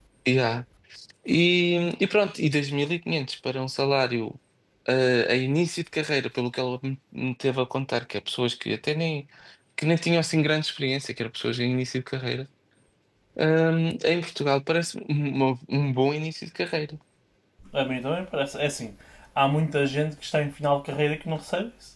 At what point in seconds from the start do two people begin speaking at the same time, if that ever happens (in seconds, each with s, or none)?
none